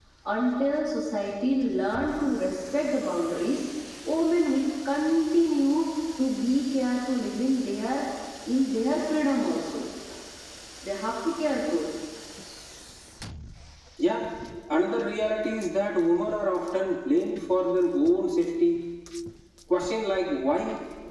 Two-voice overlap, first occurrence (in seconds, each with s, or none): none